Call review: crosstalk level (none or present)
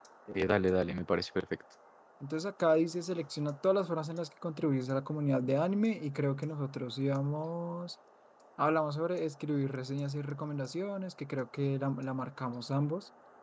none